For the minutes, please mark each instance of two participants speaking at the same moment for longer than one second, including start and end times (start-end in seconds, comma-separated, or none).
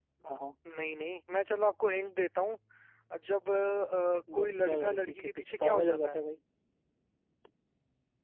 4.3-6.2